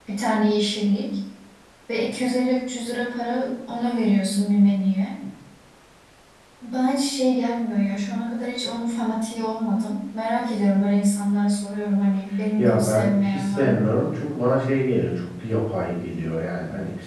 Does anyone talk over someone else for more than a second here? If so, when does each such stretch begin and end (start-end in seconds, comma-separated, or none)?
12.6-13.9